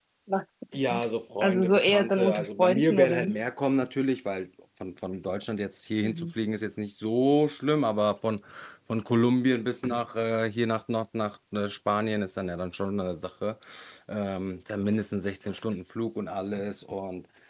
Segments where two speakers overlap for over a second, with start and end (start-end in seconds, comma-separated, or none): 1.4-3.4